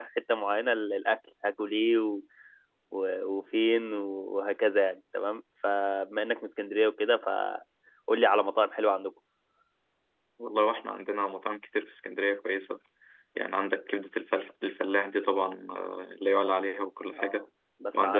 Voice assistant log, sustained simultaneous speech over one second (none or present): none